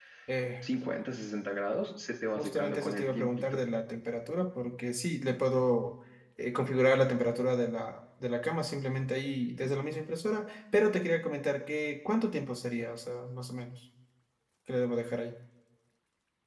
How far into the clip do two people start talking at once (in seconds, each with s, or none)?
2.4 s